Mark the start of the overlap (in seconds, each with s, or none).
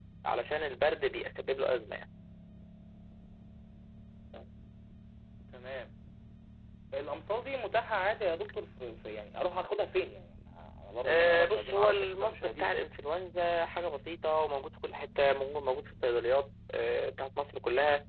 11.0 s